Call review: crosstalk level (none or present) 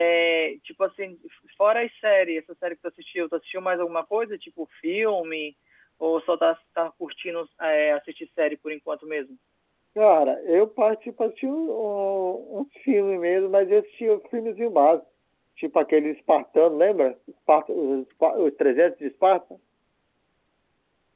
none